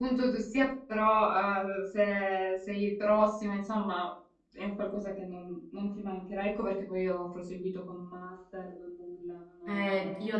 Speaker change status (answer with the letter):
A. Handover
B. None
A